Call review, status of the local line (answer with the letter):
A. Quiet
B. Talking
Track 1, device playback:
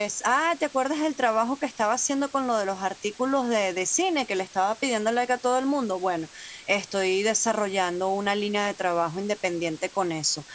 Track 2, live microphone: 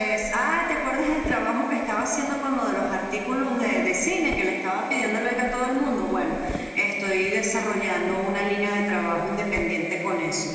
A